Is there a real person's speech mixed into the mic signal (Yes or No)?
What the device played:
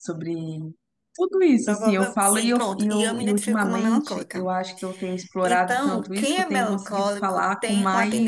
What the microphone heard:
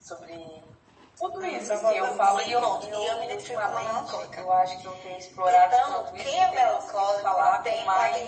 Yes